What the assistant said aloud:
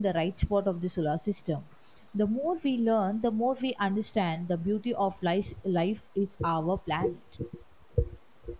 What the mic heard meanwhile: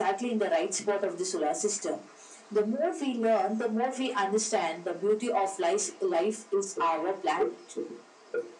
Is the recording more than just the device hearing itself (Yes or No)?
No